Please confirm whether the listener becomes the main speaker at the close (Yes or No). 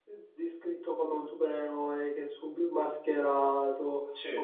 No